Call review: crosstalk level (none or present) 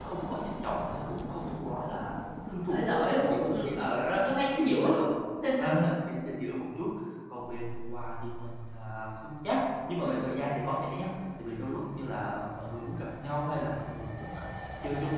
present